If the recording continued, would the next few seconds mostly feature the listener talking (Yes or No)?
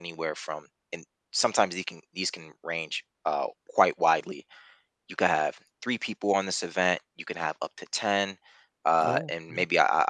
No